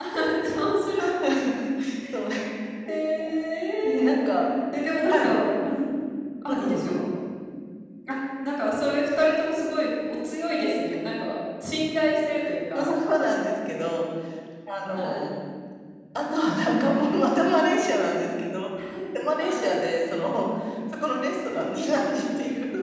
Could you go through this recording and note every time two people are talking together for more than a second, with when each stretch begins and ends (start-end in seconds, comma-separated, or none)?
none